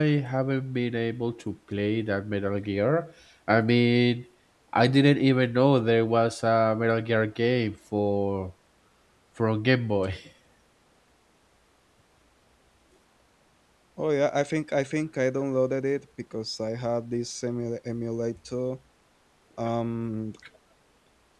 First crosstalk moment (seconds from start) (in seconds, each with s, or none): none